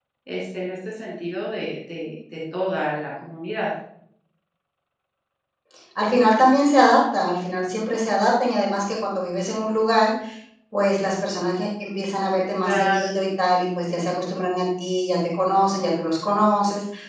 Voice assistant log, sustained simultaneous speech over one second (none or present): none